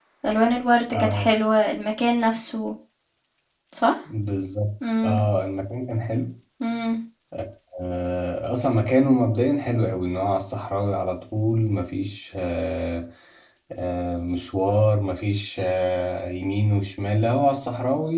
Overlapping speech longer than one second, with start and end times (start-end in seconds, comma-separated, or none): none